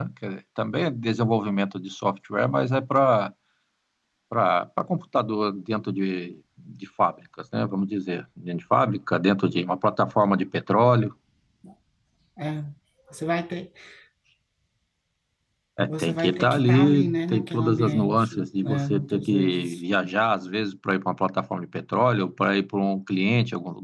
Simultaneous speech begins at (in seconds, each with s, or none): 15.9 s